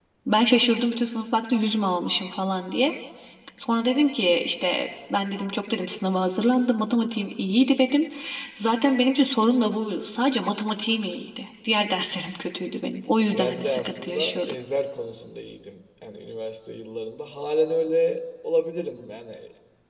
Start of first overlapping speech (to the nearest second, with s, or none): 13 s